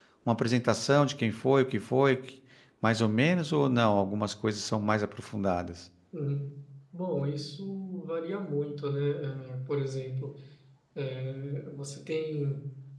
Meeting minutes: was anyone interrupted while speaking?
No

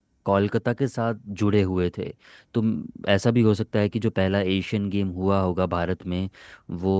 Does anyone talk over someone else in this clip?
No

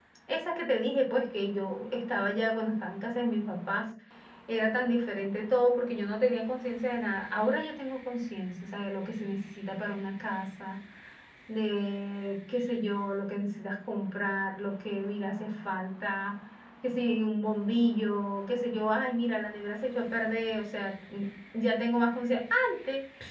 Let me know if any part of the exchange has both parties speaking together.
No

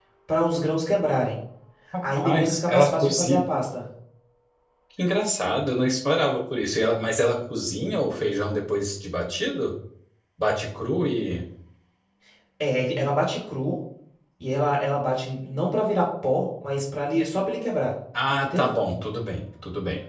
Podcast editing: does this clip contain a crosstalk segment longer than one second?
Yes, from 2.0 s

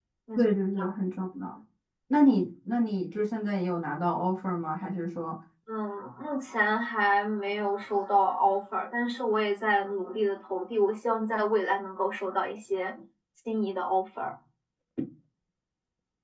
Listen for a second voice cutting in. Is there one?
No

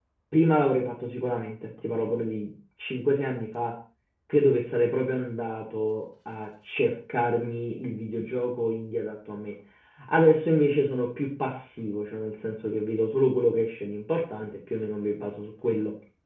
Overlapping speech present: No

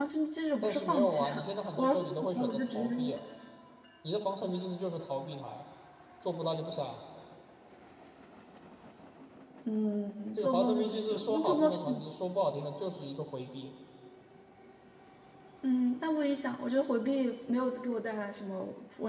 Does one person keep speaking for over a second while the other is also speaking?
Yes, from 0.6 s

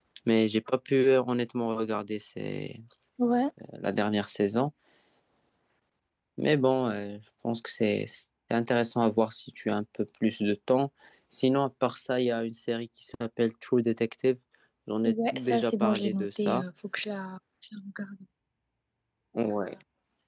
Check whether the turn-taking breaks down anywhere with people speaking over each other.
Yes, from 15.0 s

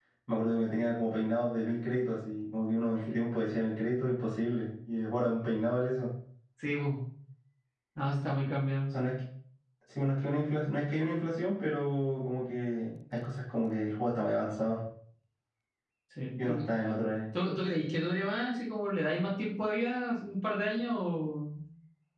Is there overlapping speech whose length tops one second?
No

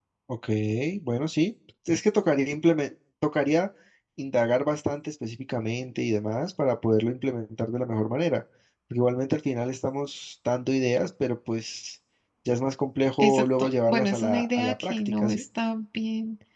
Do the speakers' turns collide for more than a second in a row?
Yes, from 13.2 s

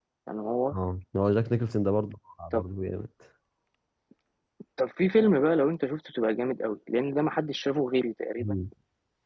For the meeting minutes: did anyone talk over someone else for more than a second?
No

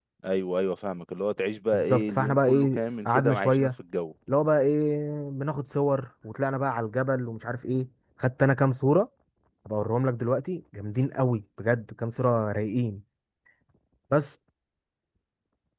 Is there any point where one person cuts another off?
Yes, from 1.7 s

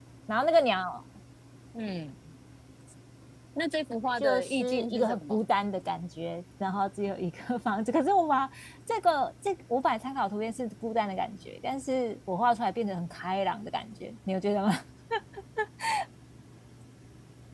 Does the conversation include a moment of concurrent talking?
Yes, from 4.2 s

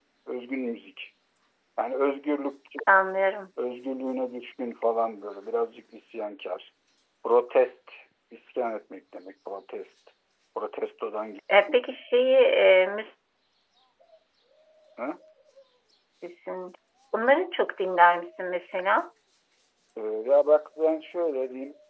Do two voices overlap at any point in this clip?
No

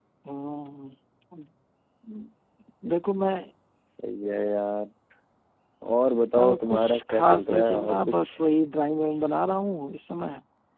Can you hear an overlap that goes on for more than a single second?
Yes, from 6.4 s

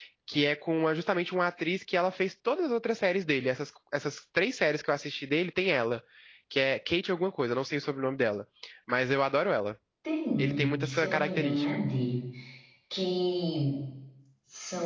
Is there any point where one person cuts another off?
Yes, from 10.4 s

